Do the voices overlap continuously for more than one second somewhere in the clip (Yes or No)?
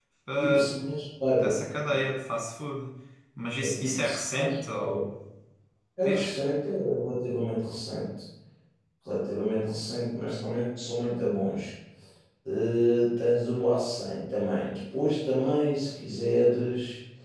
Yes